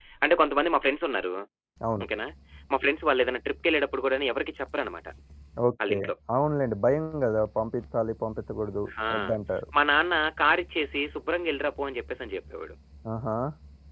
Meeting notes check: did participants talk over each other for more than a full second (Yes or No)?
No